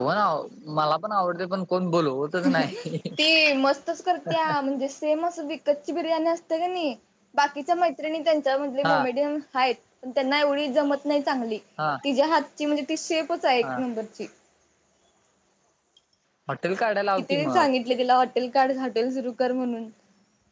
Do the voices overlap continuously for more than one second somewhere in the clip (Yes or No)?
No